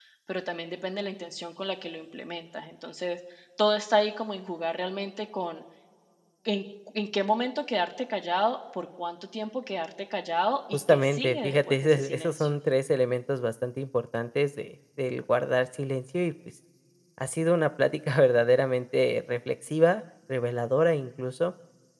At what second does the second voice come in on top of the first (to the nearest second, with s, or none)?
11 s